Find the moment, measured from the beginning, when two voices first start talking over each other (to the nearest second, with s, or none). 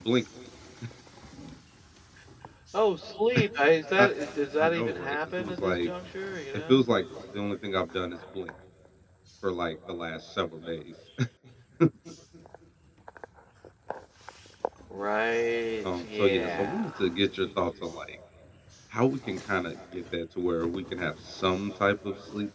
5 s